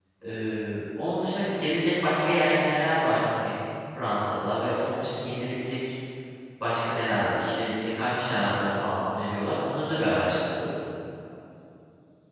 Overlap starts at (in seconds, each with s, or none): none